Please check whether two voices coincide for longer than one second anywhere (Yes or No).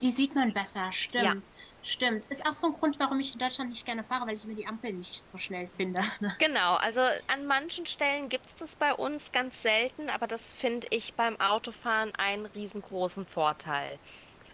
No